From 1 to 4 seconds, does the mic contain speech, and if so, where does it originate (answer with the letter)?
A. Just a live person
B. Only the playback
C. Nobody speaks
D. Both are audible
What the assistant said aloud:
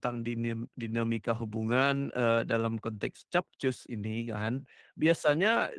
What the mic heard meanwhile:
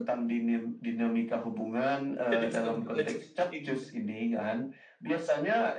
D